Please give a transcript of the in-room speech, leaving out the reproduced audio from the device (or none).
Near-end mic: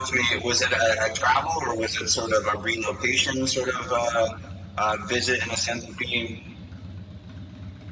none